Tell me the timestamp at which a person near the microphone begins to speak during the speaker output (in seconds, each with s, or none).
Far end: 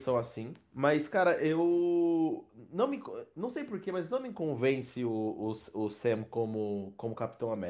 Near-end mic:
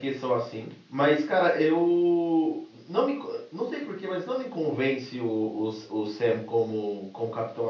none